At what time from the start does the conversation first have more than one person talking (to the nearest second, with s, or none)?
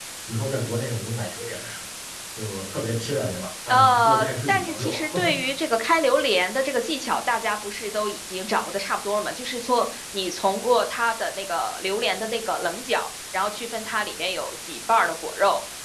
4 s